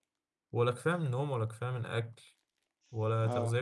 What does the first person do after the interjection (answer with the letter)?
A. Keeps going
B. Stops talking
A